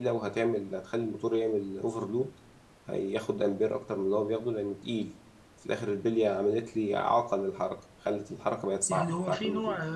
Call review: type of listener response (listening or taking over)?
taking over